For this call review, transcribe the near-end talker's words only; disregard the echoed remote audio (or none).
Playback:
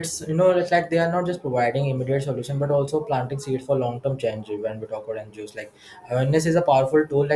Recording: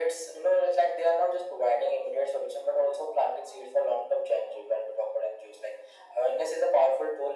none